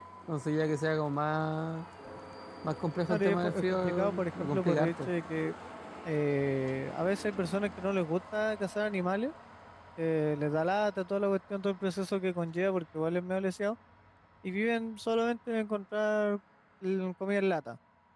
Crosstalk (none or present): present